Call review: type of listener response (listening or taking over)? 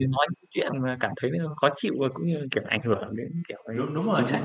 taking over